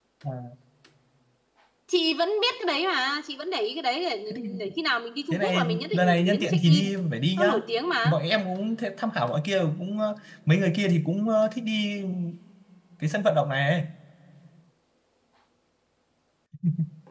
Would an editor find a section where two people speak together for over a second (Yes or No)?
Yes